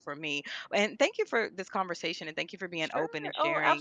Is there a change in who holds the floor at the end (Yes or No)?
Yes